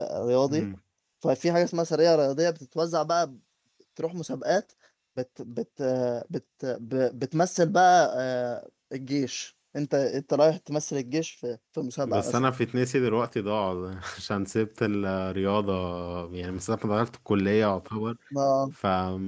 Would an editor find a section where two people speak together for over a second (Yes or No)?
No